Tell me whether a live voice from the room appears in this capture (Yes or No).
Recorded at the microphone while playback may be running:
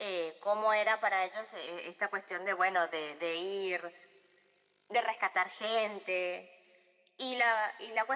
No